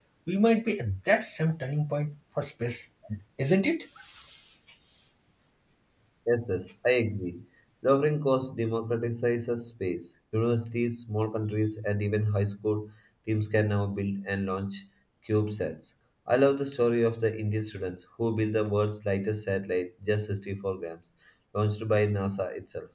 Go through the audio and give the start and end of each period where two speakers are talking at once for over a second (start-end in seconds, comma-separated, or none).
none